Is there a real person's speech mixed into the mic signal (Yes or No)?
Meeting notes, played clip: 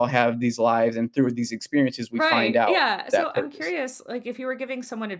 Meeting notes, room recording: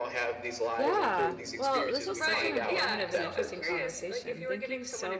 Yes